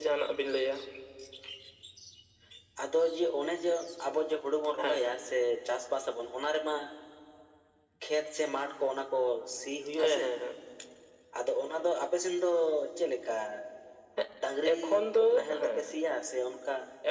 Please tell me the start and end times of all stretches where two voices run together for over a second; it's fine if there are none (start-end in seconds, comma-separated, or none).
14.7-15.9